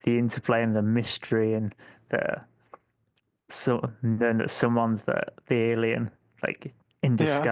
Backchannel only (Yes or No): Yes